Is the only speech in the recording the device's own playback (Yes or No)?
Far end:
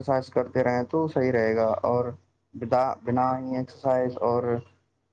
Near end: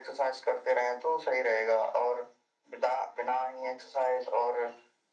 Yes